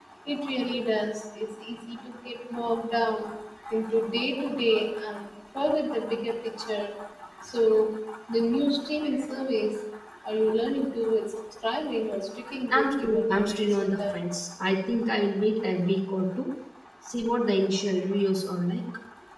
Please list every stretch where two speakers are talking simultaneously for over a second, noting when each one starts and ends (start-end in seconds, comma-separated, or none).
12.7-14.2